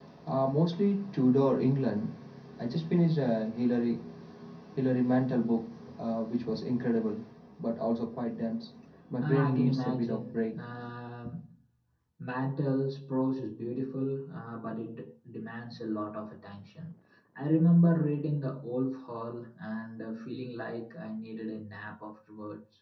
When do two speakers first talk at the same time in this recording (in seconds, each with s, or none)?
9.2 s